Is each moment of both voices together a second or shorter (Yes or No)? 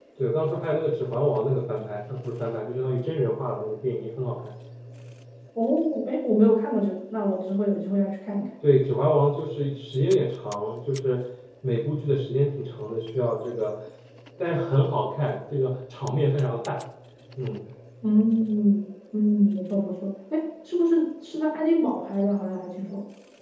Yes